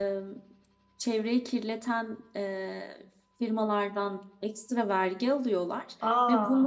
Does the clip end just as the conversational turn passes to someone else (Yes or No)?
No